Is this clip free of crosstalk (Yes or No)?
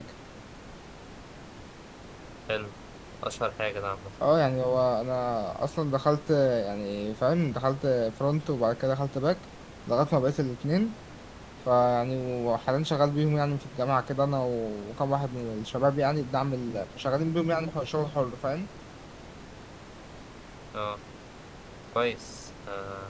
Yes